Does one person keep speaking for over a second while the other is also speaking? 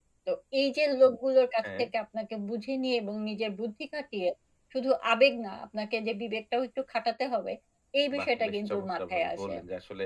Yes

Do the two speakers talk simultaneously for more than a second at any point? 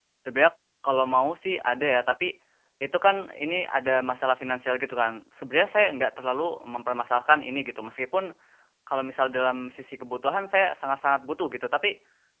No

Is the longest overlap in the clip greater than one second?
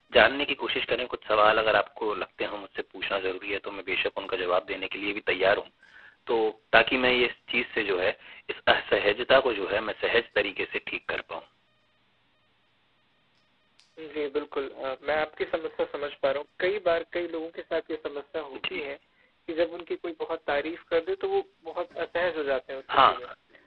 No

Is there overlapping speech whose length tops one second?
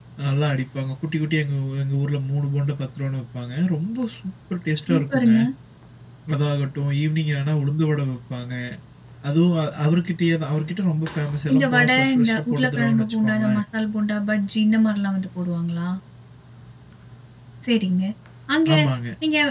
Yes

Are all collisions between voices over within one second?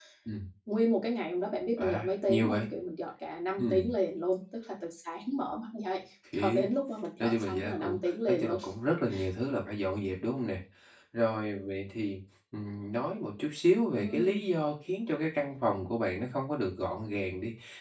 No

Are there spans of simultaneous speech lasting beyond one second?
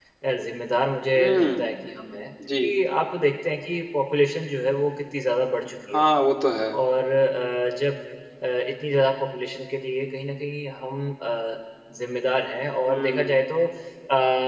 No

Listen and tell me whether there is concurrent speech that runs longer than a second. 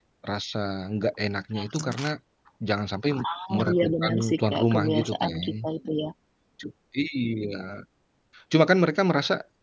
Yes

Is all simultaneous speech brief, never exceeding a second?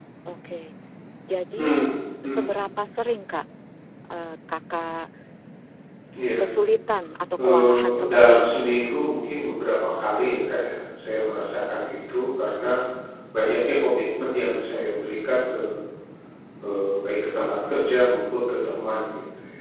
No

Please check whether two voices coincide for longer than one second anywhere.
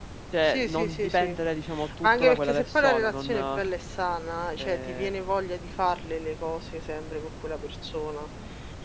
Yes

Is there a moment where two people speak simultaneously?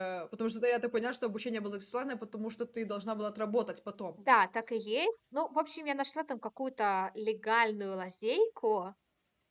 No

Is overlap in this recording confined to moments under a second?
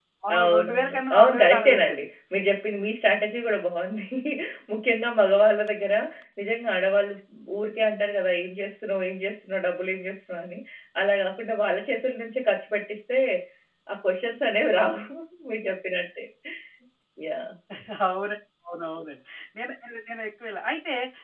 No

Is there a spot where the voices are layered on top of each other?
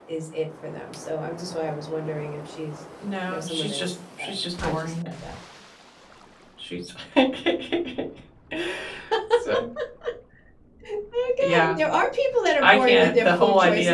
Yes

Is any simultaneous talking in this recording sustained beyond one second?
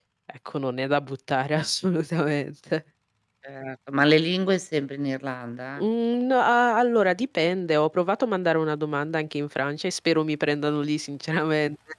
No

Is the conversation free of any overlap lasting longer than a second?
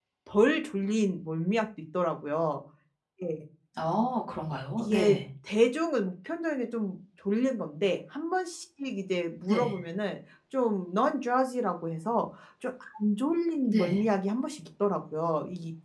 Yes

